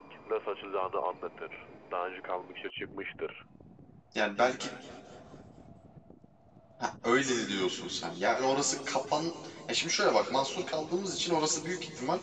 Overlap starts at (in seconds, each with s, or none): none